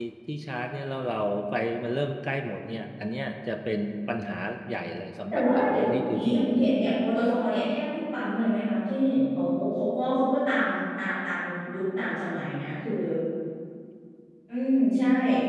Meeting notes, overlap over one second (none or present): present